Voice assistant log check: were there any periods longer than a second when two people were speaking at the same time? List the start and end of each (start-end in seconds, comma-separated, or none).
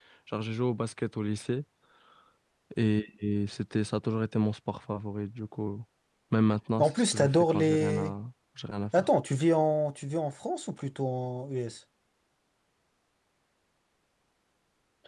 6.8-8.1